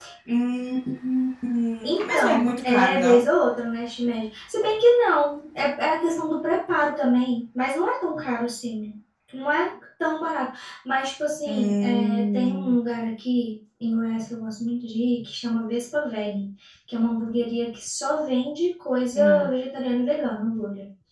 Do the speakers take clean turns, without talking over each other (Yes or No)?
No